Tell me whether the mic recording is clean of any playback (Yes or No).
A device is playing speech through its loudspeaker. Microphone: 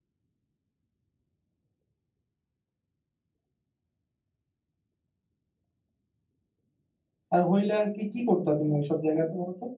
Yes